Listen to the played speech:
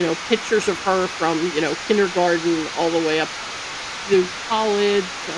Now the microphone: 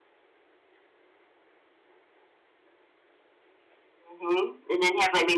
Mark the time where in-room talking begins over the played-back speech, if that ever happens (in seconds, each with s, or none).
4.0 s